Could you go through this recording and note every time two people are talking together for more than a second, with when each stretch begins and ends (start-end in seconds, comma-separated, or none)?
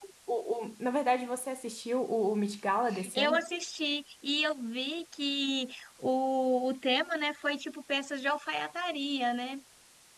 none